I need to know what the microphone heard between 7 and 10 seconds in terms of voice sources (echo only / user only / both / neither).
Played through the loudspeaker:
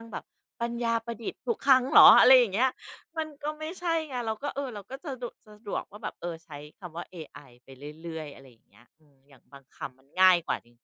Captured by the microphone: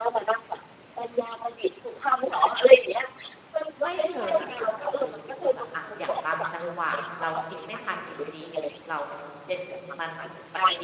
both